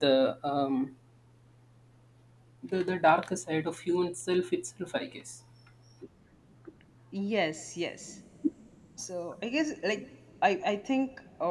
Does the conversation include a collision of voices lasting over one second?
No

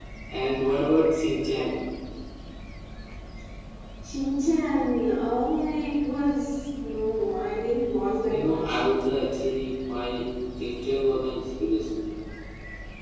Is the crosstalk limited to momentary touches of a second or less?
Yes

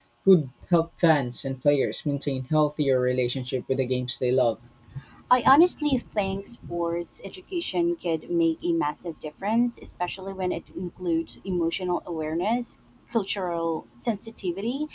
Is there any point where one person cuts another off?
No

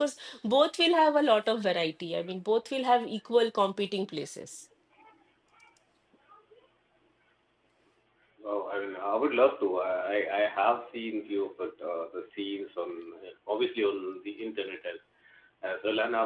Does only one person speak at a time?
Yes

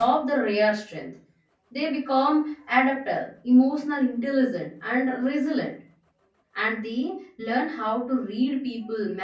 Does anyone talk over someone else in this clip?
No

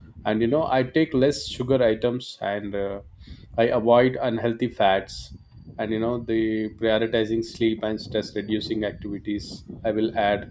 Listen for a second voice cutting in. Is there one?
No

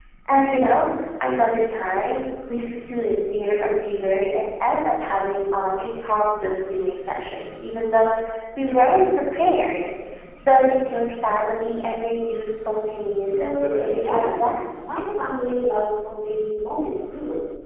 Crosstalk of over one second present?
Yes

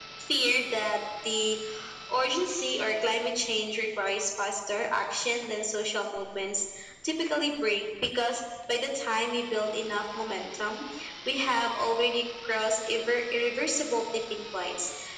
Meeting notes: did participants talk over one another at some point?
No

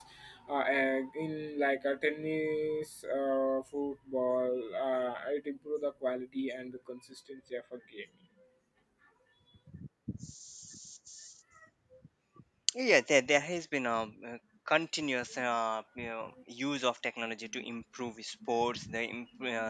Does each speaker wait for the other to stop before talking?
Yes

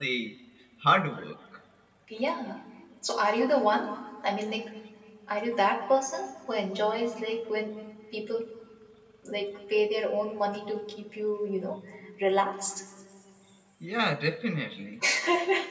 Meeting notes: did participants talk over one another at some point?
No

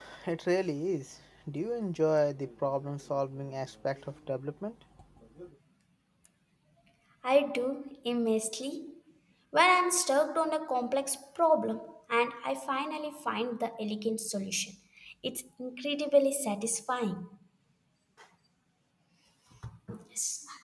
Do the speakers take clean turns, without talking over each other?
Yes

